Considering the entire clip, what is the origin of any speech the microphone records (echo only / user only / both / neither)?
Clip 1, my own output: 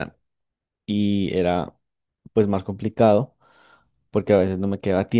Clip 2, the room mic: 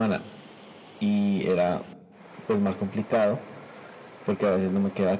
echo only